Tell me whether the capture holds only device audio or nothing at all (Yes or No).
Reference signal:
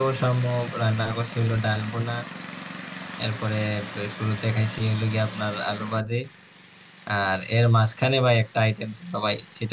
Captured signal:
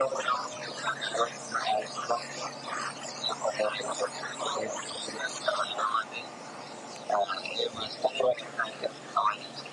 Yes